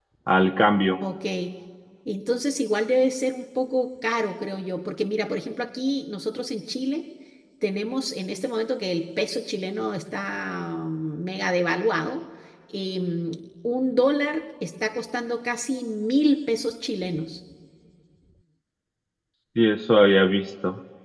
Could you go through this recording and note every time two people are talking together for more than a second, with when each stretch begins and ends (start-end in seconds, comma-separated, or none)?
none